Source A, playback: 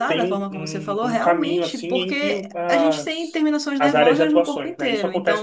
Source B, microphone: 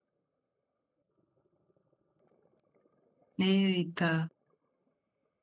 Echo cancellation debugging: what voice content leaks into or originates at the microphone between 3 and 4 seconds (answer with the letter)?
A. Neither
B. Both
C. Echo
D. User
D